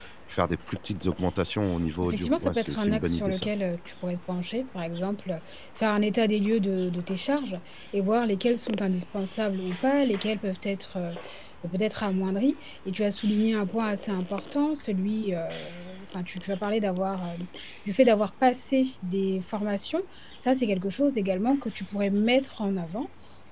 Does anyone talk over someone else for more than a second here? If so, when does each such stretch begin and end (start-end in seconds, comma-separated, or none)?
2.0-3.5